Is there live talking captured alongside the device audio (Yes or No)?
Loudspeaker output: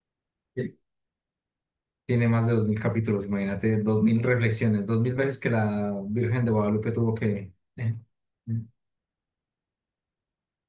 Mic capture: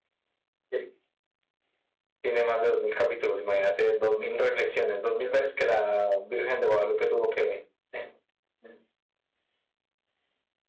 No